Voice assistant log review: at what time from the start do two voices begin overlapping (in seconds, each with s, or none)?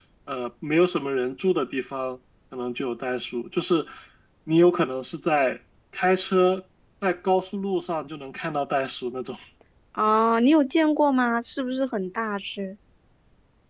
none